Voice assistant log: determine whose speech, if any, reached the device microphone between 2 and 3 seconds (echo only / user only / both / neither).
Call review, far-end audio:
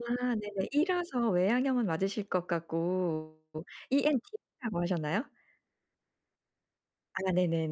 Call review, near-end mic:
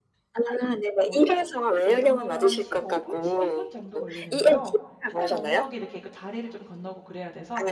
both